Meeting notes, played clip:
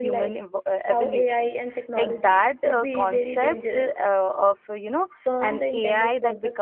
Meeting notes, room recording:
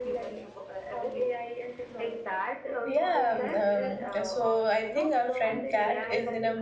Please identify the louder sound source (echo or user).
user